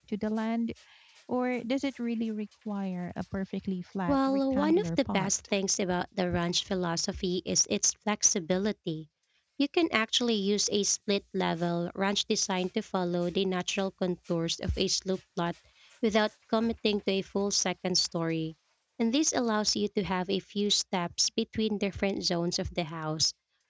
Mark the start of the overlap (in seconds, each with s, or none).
4.1 s